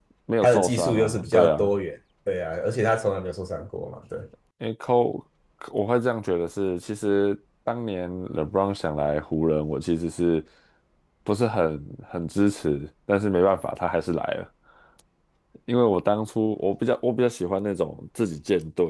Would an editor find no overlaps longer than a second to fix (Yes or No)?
No